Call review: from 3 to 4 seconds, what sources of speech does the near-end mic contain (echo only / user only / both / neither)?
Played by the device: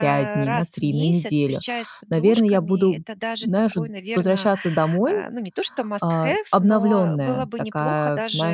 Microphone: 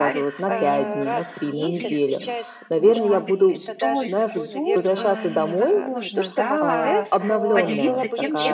both